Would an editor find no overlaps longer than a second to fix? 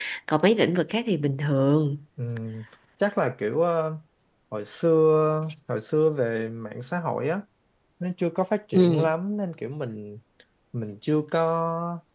Yes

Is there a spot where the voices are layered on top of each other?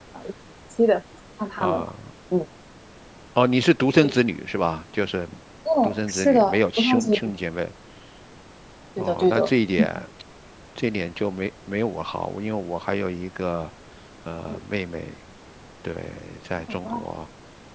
Yes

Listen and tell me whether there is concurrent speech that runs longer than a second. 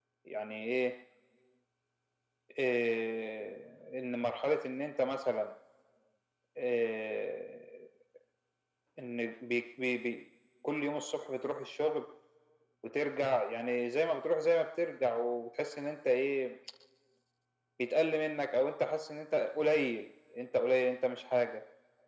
No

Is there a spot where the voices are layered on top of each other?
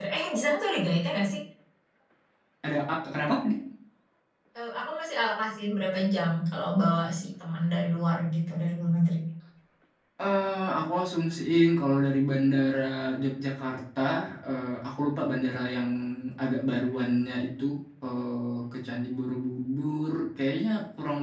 No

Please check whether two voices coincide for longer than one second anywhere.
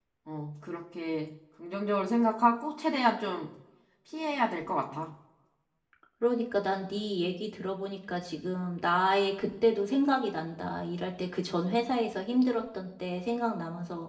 No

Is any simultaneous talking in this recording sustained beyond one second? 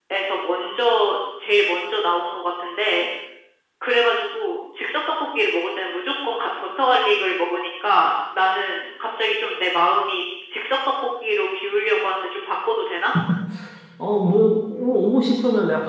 No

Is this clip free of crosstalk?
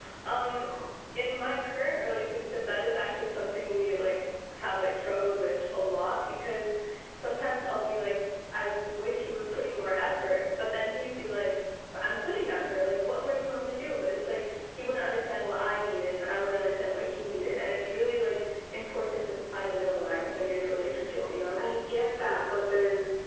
Yes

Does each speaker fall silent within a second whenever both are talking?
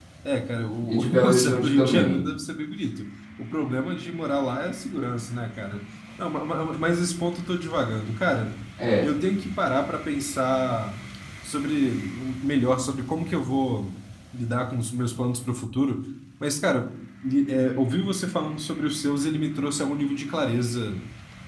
No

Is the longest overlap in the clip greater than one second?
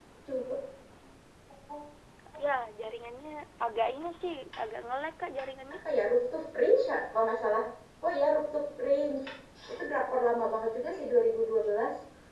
No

